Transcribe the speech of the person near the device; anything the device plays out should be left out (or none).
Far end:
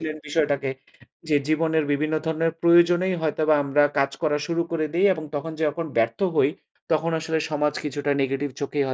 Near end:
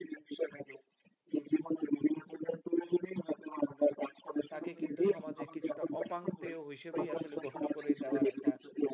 তাকে কিন্তু সমাজে কিছুটা অপাংতেয় হিসেবেই আসলে গণ্য করে দেওয়ার একটা